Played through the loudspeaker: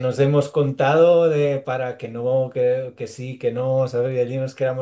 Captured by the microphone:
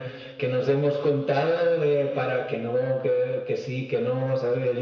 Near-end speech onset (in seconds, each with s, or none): none